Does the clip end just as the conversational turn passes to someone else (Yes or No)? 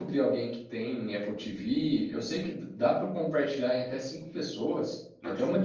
No